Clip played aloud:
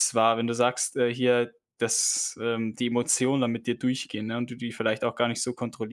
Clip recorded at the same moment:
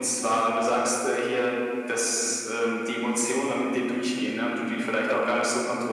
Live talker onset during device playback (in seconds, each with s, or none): none